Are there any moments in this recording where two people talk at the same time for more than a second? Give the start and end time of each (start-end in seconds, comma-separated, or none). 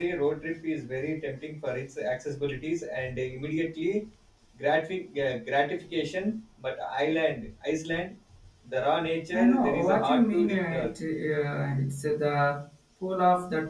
9.3-10.9